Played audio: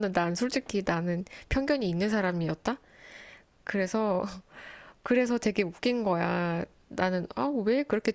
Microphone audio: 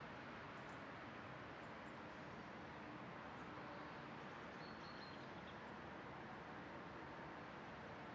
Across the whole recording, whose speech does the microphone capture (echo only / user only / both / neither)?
neither